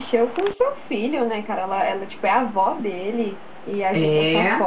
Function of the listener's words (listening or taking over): listening